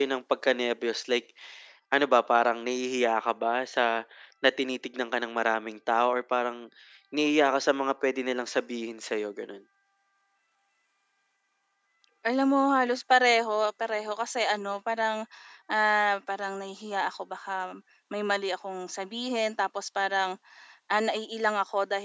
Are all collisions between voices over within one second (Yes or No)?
Yes